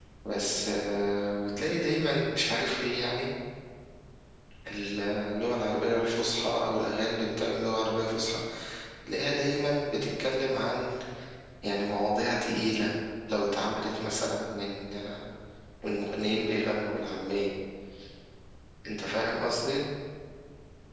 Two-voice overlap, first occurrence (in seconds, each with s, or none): none